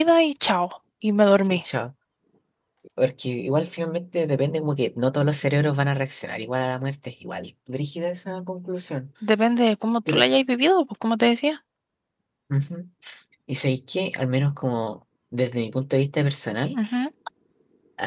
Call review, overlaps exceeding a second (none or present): none